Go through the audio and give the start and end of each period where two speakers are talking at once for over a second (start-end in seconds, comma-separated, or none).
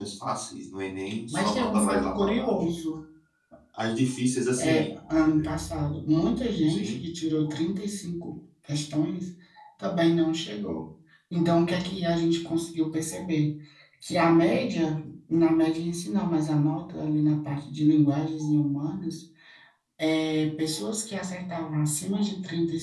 1.3-2.5